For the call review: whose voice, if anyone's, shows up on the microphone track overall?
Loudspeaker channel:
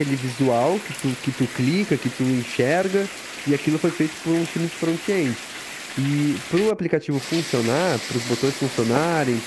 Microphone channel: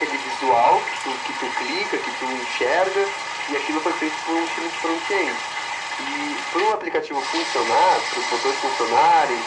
echo only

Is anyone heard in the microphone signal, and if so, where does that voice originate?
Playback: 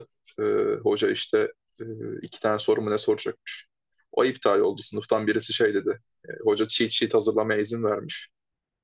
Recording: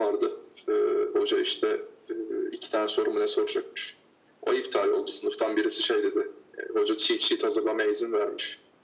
echo only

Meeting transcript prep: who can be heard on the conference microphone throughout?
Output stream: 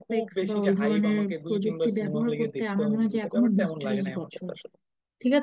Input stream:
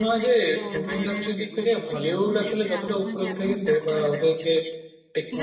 both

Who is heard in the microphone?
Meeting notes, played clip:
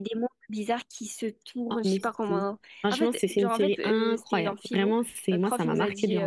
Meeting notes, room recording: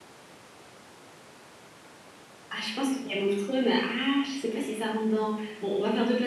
user only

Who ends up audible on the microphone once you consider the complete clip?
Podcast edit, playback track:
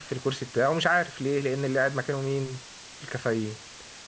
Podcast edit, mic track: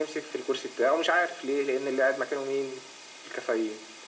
echo only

